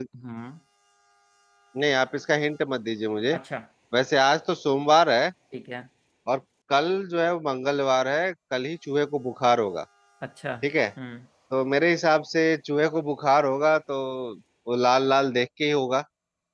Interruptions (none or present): none